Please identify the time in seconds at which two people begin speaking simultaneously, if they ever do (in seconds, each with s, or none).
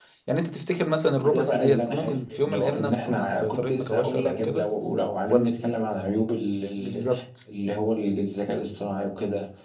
1.2 s